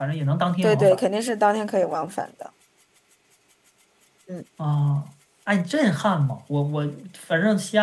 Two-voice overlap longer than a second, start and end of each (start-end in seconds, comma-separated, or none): none